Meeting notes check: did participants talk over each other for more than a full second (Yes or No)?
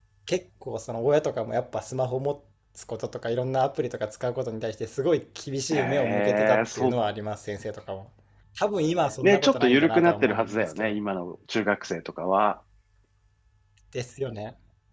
Yes